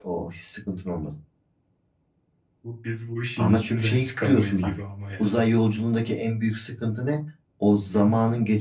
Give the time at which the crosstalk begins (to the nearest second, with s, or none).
3 s